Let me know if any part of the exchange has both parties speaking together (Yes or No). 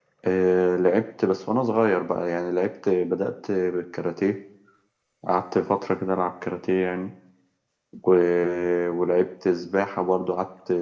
No